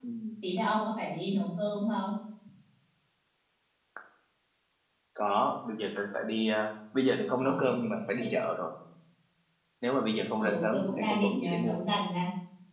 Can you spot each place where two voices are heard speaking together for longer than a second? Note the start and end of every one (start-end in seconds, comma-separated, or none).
10.4-11.8